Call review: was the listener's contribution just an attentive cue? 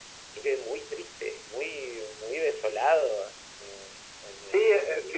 No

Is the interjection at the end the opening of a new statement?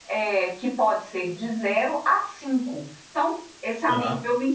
No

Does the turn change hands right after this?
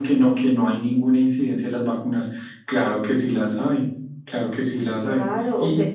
Yes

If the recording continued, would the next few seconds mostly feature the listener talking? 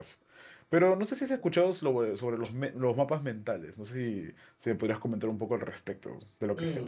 Yes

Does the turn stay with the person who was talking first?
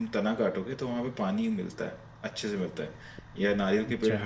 Yes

